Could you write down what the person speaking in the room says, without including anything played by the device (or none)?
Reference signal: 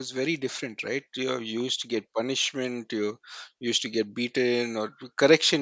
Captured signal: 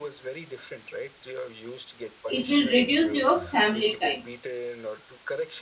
It will reduce your family time.